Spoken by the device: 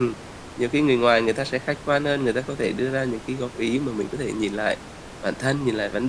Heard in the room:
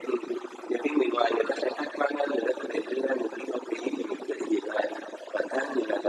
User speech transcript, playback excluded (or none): none